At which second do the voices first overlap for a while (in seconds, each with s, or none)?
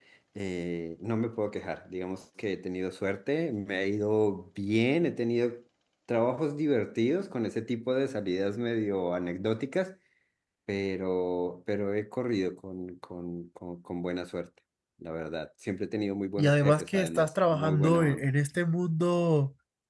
16.4 s